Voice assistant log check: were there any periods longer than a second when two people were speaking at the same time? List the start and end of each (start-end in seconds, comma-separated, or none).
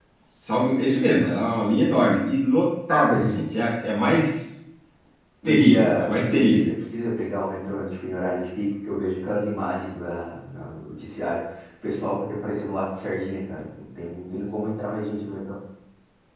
5.5-6.7